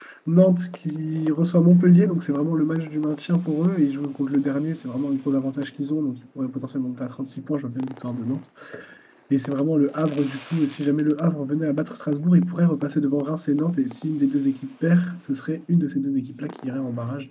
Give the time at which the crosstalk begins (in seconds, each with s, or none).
none